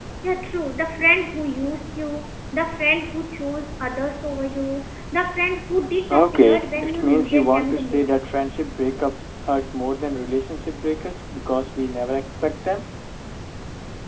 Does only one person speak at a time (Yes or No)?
No